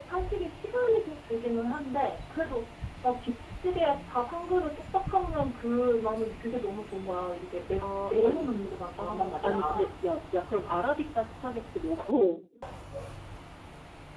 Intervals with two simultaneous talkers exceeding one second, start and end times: 7.8-9.9

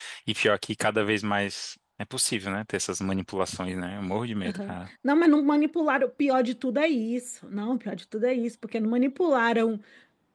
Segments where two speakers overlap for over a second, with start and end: none

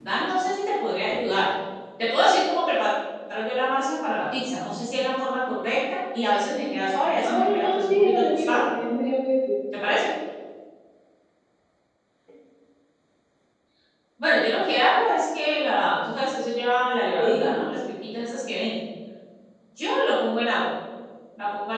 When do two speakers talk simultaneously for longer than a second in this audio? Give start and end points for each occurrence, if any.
7.2-8.7

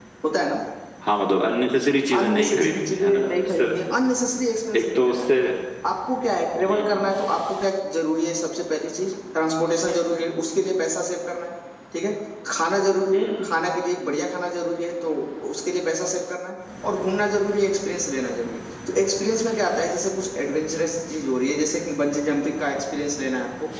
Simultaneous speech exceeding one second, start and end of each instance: 2.2-3.6

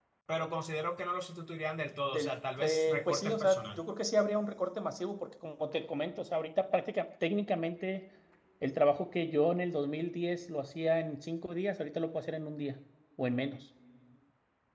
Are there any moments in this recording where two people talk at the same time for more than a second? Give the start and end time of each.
2.1-3.8

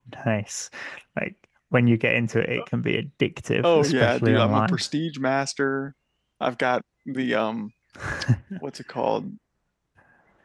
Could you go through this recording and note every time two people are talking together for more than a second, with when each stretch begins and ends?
3.6-4.8

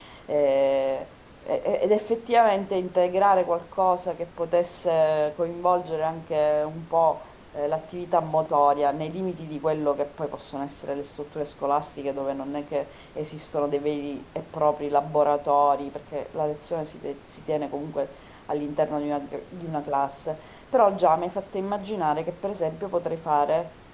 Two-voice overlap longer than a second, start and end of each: none

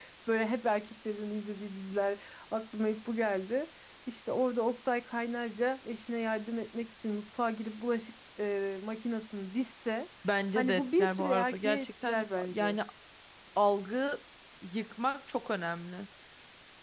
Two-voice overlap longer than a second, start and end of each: 10.6-12.8

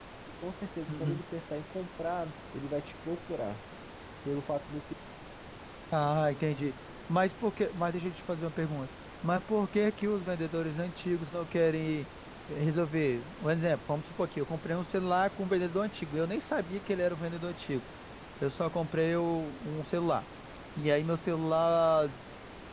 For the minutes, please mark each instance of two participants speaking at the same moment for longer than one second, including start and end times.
none

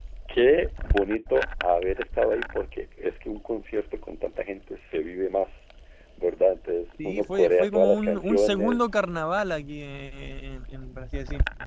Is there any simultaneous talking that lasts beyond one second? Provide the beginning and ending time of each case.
7.0-8.9

